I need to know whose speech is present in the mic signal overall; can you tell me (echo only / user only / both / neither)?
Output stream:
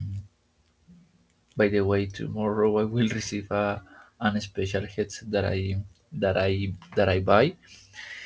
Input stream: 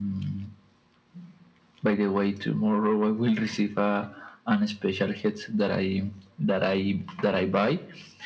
echo only